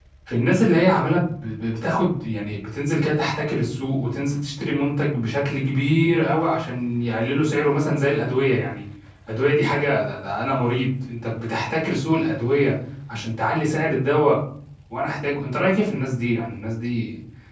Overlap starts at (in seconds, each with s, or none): none